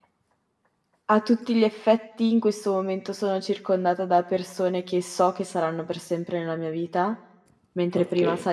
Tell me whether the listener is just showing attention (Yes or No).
Yes